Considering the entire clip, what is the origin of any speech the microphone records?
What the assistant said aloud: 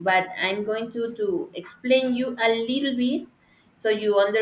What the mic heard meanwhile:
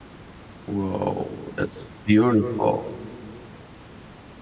user only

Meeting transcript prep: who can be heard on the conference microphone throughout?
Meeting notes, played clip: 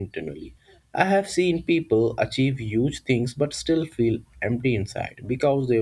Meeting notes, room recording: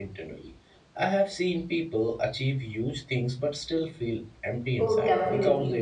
both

